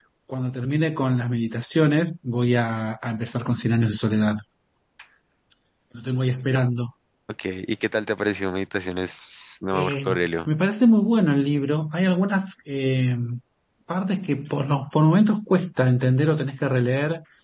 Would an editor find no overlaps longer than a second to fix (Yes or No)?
Yes